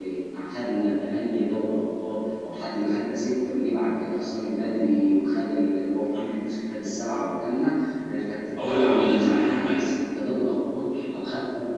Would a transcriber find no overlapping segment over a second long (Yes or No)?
No